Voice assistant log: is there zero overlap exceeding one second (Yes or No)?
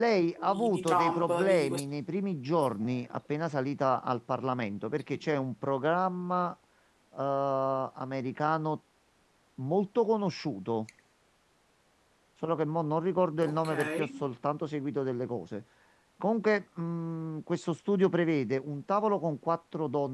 No